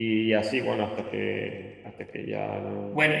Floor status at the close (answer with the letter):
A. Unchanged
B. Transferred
B